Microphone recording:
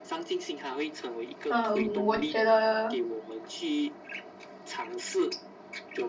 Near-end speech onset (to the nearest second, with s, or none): 1 s